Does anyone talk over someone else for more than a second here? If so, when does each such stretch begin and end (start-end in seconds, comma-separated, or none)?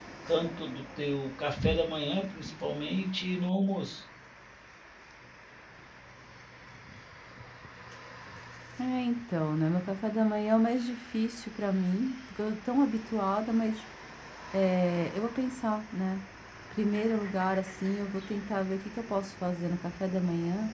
none